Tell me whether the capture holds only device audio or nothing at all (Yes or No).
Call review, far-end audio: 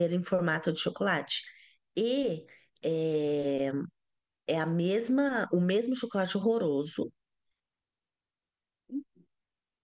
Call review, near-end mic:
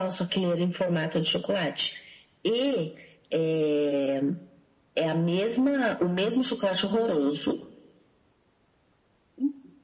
Yes